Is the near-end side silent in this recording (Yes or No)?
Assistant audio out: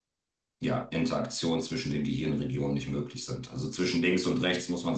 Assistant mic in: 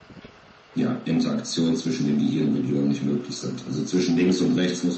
Yes